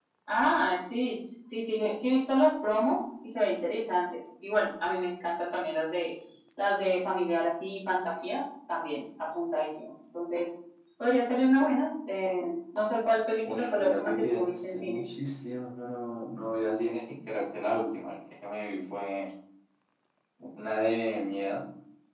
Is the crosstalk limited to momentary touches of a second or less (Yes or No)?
No